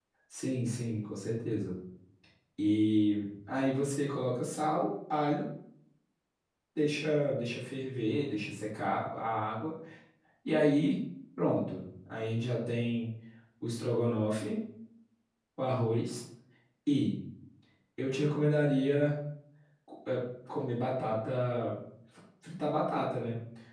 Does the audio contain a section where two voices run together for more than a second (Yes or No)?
No